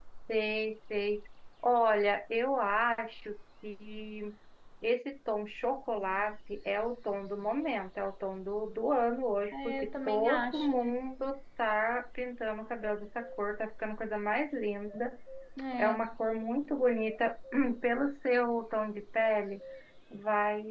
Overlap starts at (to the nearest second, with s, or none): 10 s